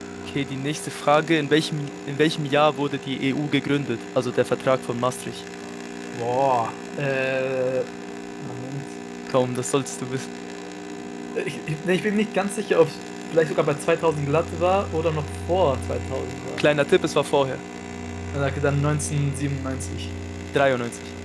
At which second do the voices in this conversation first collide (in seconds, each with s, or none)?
none